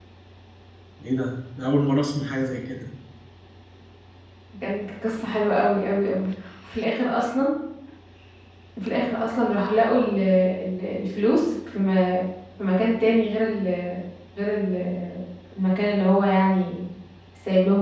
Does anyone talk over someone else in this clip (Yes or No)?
No